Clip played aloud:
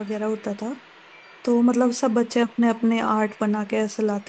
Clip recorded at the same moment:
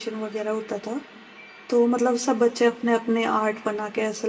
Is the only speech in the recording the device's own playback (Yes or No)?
Yes